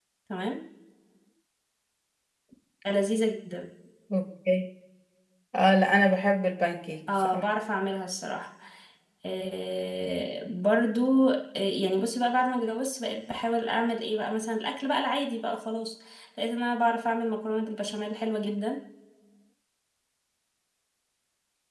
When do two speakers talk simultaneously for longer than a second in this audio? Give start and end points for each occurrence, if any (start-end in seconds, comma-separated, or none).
none